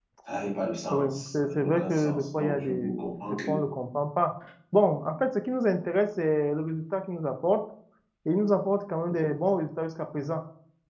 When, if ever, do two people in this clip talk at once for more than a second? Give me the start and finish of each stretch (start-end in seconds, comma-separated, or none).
0.9-3.6